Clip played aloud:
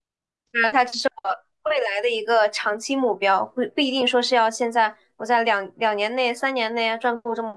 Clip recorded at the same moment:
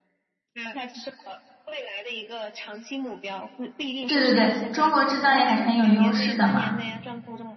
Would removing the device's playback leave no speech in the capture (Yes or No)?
No